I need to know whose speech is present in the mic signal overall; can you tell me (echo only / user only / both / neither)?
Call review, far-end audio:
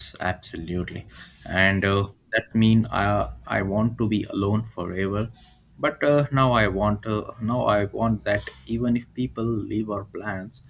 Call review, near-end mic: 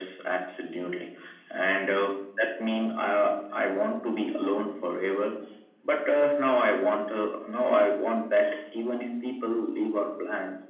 echo only